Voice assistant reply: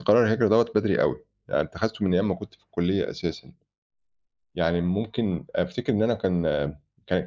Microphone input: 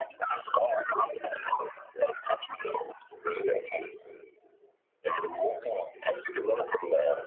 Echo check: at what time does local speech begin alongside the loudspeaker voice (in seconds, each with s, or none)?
none